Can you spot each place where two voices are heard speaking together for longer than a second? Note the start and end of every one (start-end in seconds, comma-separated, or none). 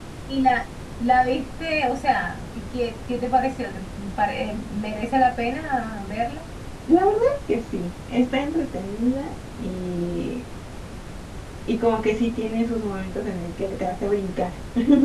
none